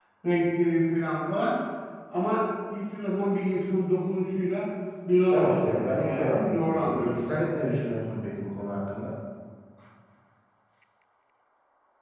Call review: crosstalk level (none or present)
present